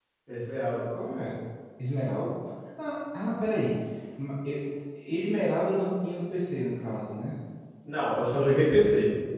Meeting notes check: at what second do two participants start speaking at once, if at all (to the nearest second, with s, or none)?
none